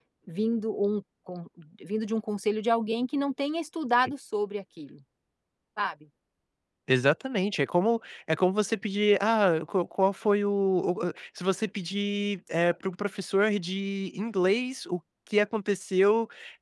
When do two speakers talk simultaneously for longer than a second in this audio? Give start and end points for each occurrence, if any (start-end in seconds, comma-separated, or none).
none